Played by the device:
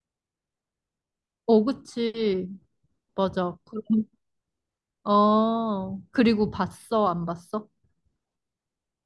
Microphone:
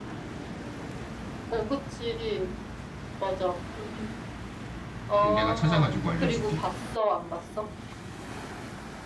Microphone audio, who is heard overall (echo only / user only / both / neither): both